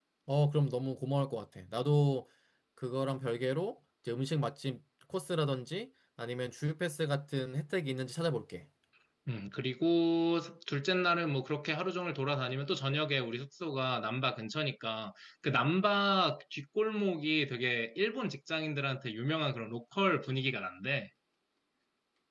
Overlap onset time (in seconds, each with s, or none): none